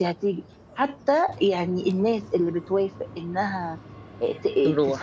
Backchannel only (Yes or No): Yes